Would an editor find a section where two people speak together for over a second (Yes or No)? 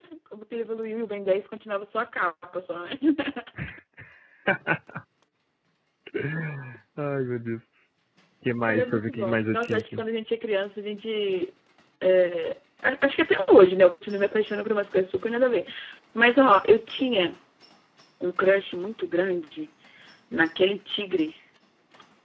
Yes